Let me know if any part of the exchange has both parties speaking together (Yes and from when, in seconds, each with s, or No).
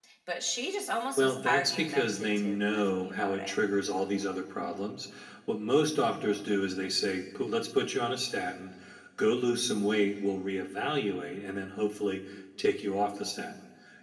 Yes, from 1.2 s